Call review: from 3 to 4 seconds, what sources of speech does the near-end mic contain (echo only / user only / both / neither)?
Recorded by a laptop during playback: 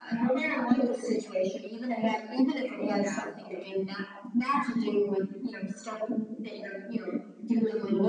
both